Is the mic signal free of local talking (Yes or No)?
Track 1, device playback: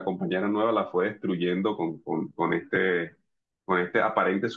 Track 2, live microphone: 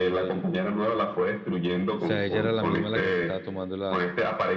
No